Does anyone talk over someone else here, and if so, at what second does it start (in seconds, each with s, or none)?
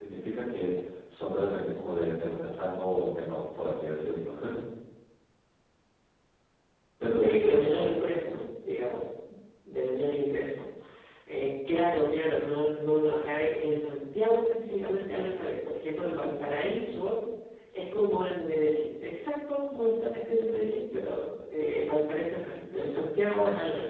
7.0 s